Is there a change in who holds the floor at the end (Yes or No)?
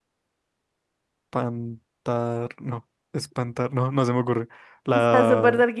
Yes